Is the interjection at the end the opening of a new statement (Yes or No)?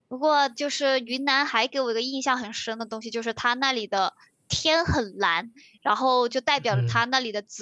No